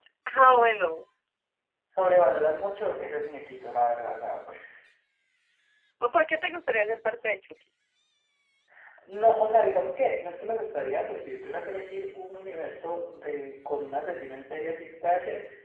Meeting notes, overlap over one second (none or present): none